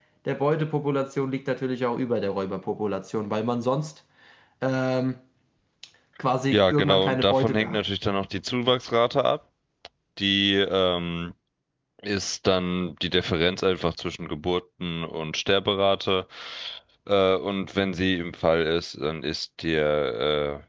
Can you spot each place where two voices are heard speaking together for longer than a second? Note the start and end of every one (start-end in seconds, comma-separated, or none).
6.5-7.8